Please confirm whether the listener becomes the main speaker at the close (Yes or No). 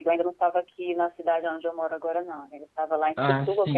No